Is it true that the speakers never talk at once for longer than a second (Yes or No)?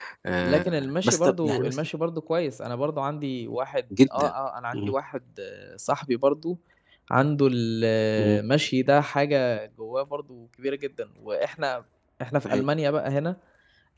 No